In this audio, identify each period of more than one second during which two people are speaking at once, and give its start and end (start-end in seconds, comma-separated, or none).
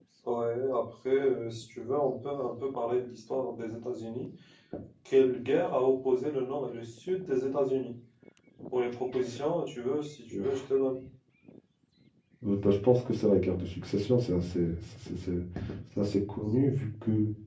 none